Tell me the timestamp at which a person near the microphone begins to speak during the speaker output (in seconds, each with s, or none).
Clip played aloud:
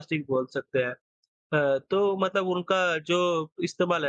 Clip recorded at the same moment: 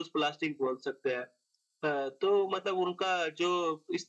none